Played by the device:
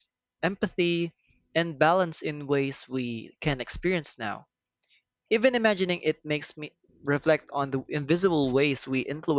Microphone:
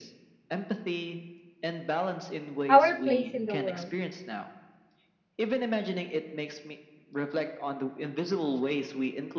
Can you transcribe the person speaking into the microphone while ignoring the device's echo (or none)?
our place in the world.